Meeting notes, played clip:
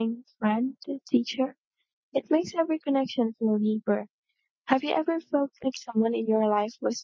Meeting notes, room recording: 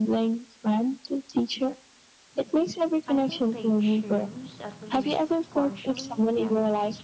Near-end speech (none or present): present